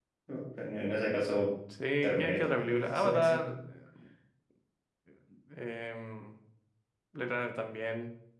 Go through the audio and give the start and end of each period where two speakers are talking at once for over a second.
2.0-3.5

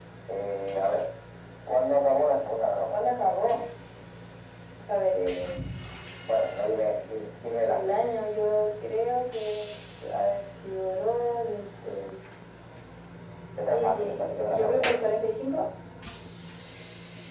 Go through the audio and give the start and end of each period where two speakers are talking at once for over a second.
13.7-15.0

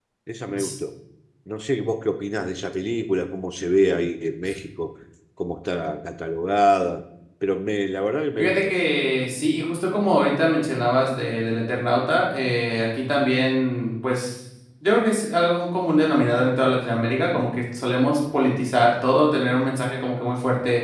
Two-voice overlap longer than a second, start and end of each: none

